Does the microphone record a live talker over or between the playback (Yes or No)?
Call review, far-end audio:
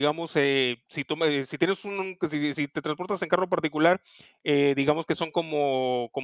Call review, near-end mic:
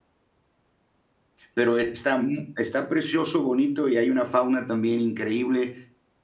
Yes